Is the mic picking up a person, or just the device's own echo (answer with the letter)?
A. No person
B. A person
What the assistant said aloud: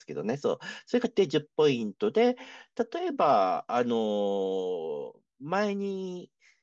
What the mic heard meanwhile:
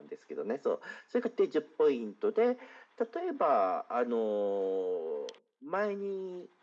A